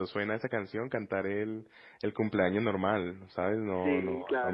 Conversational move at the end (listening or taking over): listening